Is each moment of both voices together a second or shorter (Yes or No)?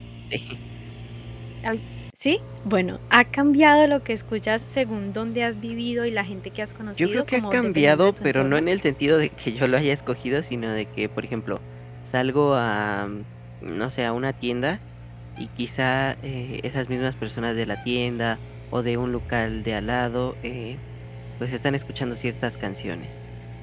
No